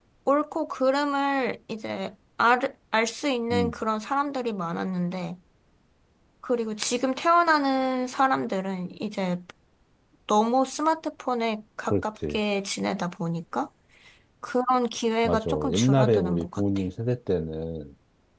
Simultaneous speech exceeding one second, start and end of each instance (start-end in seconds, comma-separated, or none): 15.2-16.6